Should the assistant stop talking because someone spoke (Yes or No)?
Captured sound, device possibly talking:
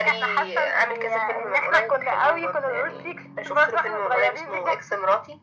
No